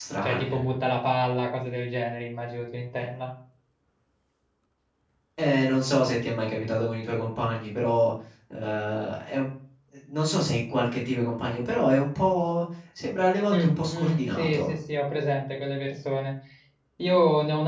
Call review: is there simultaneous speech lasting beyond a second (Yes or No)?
Yes